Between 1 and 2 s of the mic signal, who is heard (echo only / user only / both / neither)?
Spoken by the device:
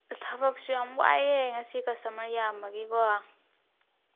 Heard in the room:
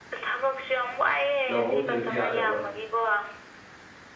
both